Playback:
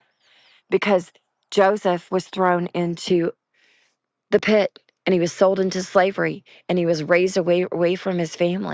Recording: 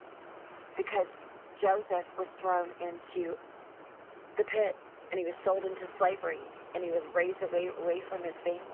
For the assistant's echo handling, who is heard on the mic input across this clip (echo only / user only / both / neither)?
echo only